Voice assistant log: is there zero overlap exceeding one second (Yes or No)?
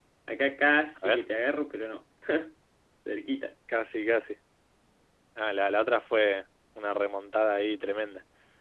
Yes